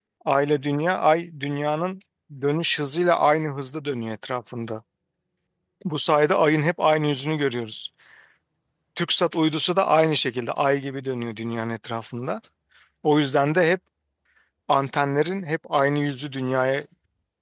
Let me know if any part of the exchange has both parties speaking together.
No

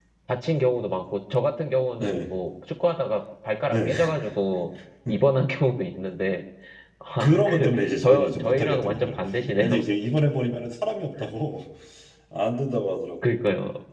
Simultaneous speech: Yes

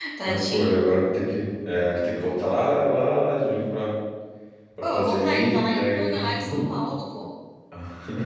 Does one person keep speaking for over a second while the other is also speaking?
Yes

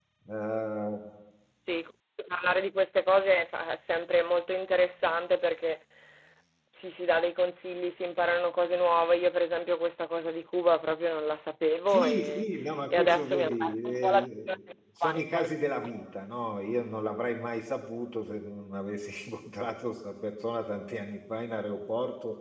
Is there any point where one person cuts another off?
Yes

